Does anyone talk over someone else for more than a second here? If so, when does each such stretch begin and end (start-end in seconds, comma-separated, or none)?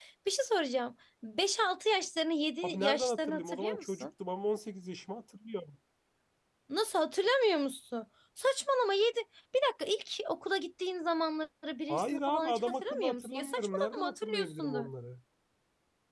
2.6-4.1, 11.9-14.8